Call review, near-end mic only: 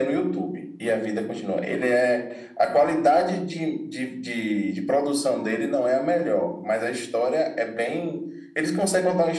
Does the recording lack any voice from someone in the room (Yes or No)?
Yes